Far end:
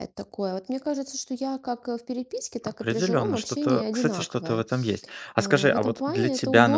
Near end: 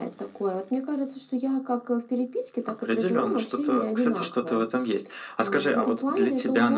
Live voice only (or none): none